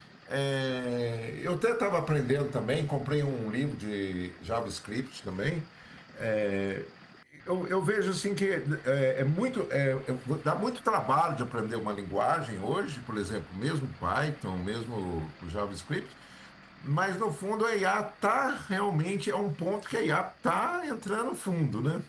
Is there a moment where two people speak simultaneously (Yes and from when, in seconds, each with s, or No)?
No